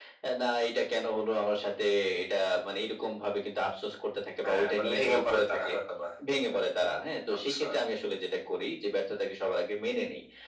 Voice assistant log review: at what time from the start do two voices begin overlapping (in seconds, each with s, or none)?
4.4 s